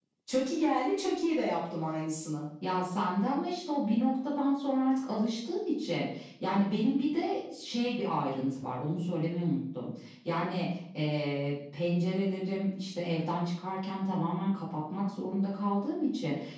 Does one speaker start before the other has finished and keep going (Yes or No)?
No